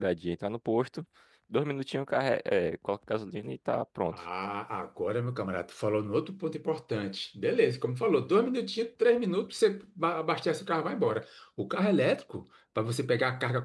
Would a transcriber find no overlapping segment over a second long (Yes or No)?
Yes